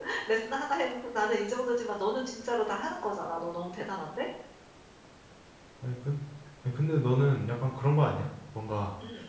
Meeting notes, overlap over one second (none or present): none